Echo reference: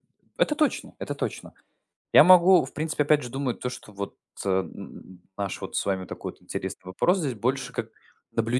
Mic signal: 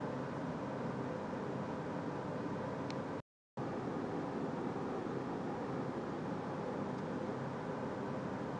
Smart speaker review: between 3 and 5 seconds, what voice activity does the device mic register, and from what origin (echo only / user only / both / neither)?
neither